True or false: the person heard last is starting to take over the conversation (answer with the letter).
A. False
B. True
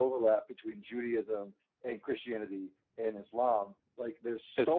A